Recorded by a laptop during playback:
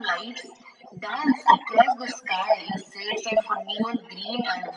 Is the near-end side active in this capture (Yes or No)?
No